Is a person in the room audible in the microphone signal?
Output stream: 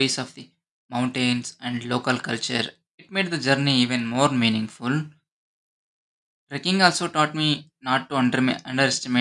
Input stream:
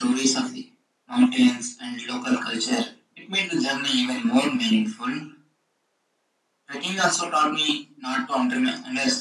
No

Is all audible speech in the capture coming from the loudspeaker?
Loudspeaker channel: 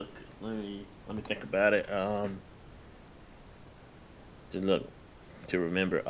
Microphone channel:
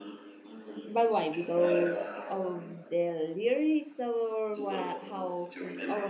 No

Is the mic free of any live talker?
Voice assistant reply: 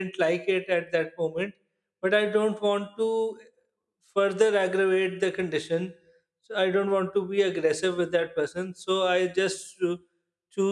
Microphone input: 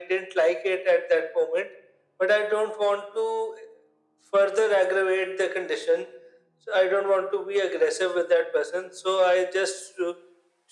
Yes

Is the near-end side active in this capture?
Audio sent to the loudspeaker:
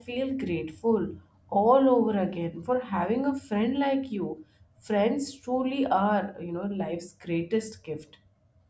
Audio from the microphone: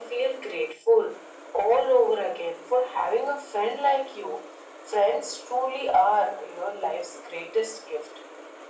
No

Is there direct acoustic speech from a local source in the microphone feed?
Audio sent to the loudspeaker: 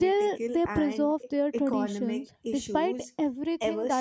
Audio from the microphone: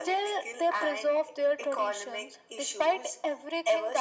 No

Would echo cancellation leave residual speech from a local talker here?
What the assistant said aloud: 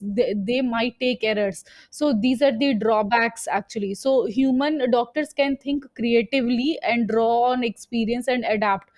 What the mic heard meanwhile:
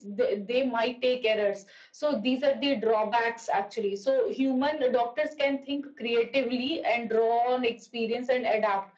No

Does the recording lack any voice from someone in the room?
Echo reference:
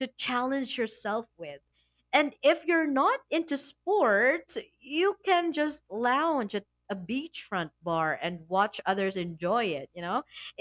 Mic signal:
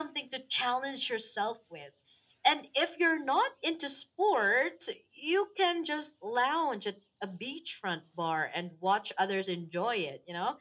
Yes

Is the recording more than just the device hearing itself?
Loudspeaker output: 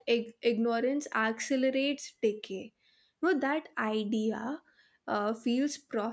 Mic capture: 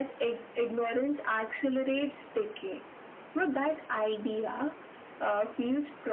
No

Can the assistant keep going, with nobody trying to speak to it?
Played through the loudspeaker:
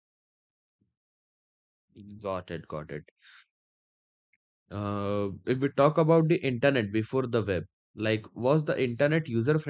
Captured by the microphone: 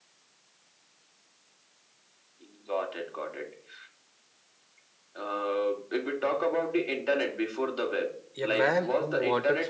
No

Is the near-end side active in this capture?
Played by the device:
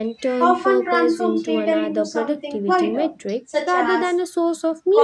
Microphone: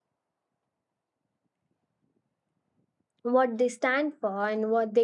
Yes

